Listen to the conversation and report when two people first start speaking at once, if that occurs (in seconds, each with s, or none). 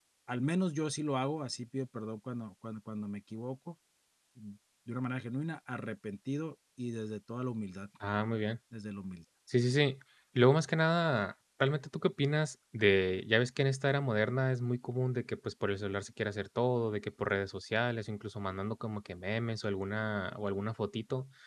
none